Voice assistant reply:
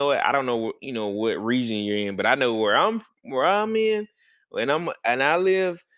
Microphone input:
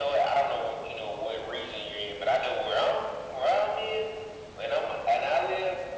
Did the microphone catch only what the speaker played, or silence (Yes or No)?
Yes